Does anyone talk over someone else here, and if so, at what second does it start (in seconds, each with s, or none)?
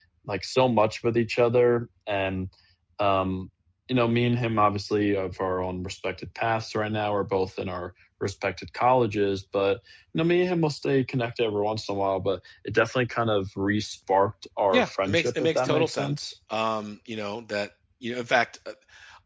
14.7 s